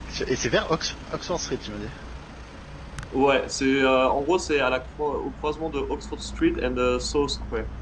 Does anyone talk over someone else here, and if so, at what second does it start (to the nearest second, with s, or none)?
none